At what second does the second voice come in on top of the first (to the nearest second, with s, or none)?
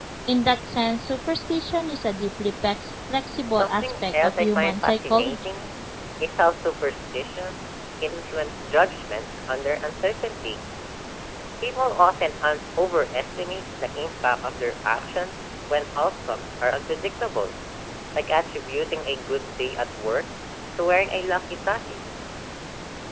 4 s